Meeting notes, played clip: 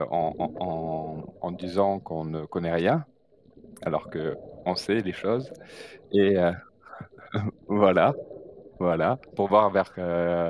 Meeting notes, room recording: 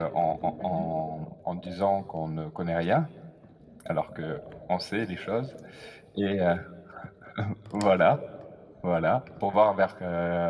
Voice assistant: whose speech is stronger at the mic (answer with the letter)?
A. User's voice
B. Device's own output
B